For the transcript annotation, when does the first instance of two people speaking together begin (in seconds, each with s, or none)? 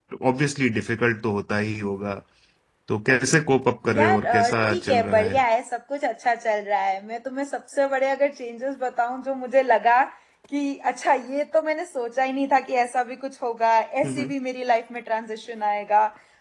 3.9 s